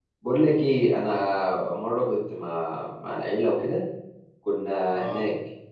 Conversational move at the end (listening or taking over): listening